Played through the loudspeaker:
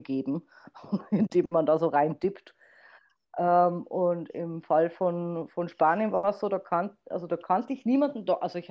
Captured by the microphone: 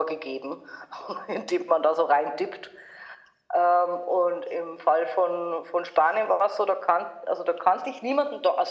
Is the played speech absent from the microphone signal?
No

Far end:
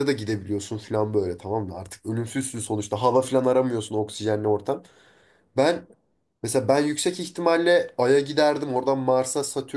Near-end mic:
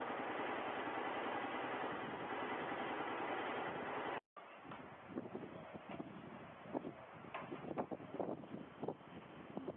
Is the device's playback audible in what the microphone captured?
No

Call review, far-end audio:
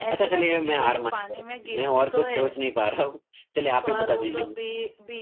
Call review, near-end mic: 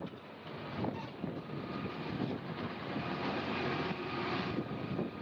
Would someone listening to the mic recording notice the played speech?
No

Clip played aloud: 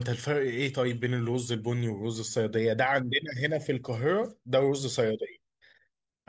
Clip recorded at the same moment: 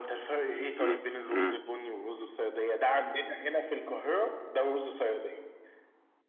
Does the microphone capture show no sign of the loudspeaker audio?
No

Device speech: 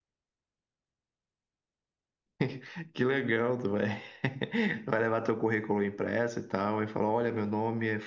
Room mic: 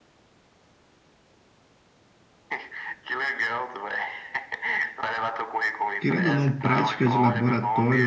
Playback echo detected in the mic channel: Yes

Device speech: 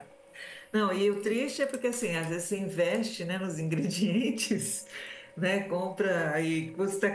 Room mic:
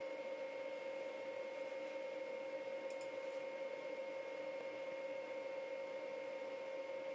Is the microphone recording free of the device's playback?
Yes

